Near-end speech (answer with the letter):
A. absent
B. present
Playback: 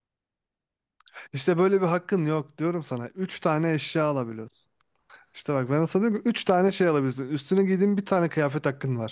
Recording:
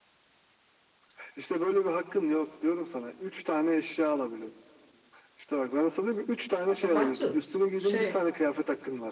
B